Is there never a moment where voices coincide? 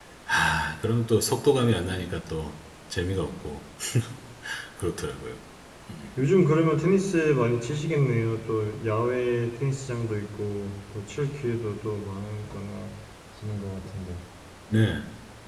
Yes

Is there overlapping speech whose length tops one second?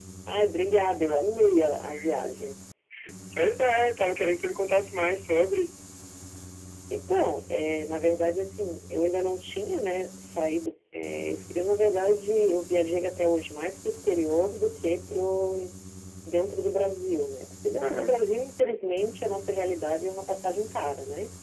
No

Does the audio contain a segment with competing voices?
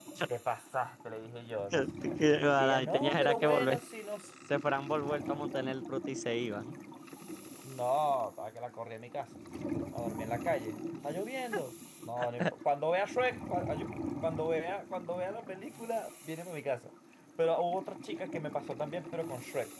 Yes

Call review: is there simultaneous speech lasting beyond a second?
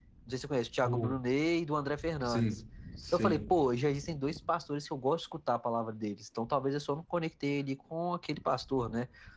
No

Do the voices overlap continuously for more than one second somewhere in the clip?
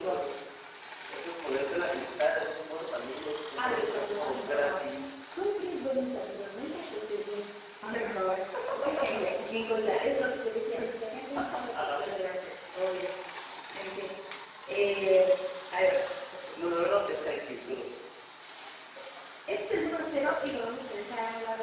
Yes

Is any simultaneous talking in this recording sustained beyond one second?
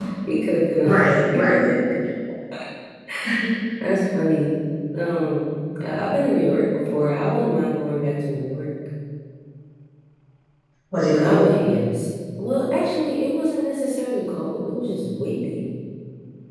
No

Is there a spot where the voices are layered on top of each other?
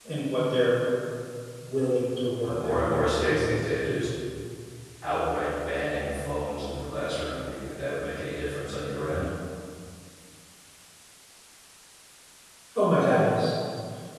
Yes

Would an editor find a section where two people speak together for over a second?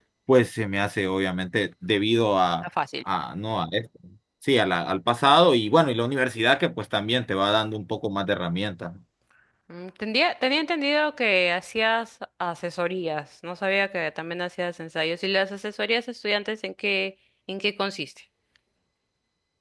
No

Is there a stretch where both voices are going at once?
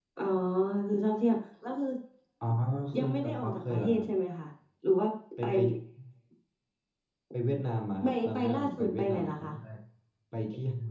Yes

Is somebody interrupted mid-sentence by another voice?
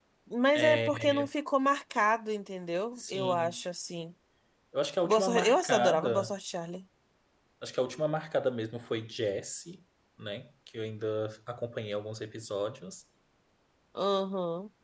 Yes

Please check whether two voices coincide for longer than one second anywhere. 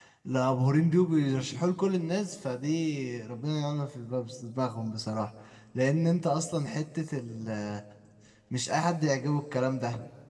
No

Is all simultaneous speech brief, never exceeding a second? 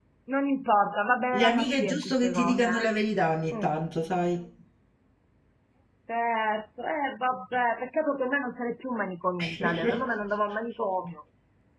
No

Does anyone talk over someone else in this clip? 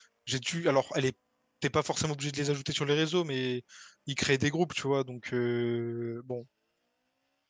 No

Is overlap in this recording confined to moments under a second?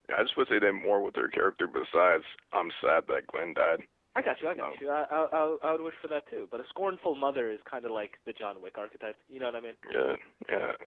Yes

